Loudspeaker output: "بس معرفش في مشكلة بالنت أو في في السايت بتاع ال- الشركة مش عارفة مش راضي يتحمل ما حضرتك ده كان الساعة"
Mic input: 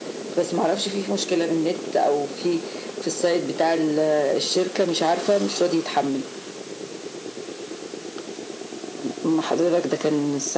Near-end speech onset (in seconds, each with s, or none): none